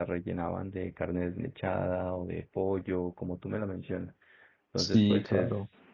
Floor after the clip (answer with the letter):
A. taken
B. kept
B